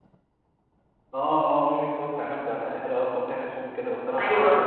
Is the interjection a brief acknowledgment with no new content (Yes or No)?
No